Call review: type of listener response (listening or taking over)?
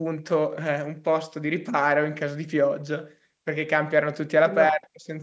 listening